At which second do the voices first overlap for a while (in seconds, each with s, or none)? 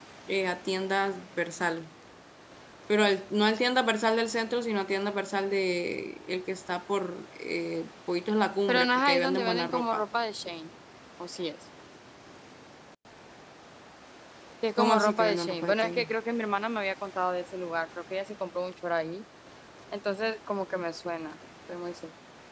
8.7 s